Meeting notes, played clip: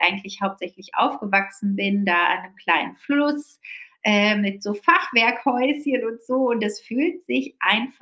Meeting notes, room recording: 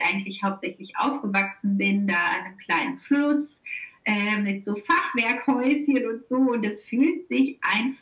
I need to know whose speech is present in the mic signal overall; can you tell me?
echo only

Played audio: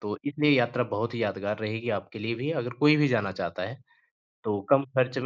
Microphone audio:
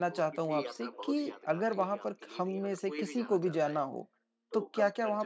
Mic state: both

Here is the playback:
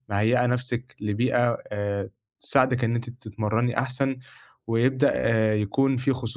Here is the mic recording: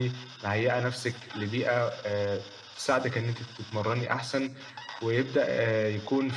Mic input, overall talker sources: echo only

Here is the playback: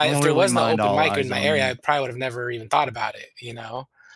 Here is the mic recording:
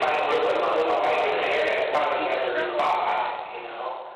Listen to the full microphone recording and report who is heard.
both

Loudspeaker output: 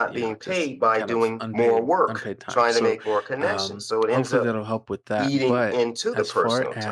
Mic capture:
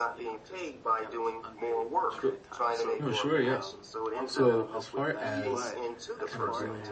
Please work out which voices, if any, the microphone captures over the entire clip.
both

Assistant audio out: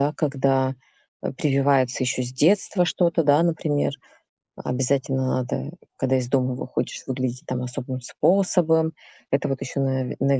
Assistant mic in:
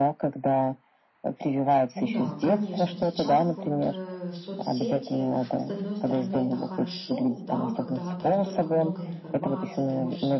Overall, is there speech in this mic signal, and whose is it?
both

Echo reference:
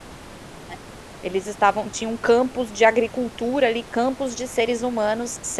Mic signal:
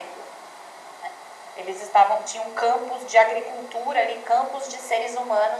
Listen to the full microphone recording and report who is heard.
echo only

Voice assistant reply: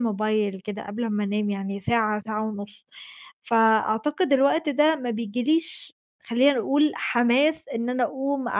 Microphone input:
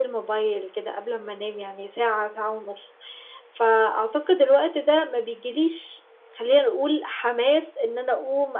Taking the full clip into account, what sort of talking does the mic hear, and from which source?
echo only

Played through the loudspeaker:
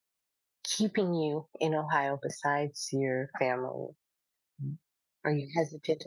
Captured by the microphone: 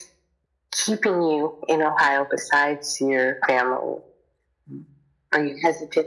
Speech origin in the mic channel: echo only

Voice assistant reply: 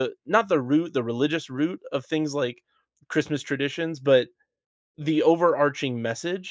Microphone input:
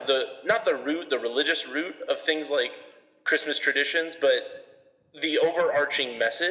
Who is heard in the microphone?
echo only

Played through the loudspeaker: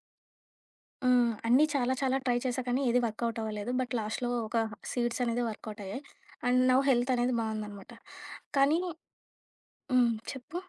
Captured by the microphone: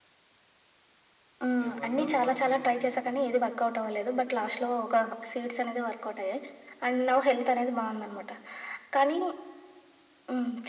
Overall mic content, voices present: both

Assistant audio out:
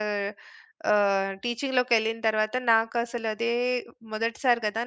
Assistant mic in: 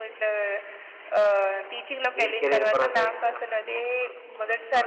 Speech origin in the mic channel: both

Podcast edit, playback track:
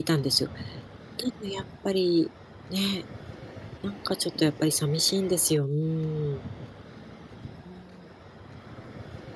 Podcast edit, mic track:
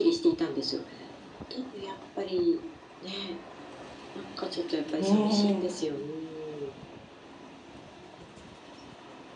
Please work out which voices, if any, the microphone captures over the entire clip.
both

